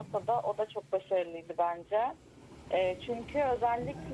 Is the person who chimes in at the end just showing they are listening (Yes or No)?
Yes